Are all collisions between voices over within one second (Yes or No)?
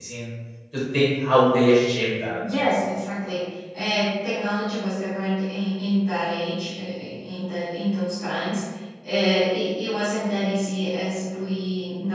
Yes